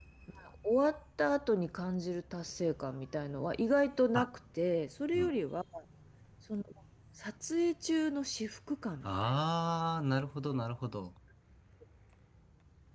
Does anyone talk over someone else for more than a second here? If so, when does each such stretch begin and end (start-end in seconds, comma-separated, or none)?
none